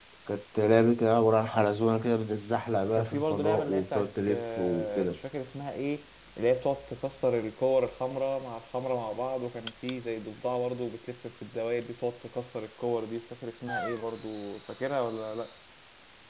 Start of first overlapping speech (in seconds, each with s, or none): 2.9 s